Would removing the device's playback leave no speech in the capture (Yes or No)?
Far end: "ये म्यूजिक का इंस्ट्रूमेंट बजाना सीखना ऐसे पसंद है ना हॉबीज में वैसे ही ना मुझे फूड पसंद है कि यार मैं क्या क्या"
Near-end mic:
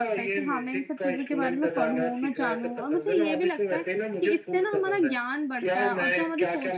No